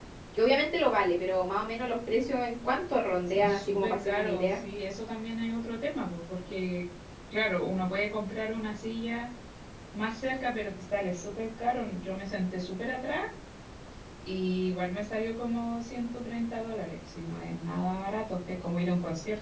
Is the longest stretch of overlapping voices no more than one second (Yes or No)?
No